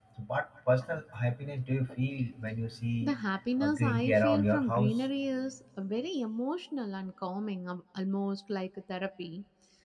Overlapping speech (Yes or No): Yes